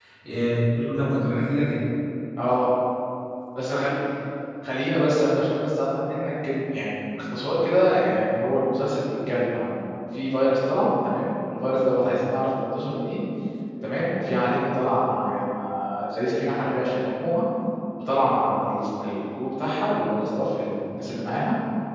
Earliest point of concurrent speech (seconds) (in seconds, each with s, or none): none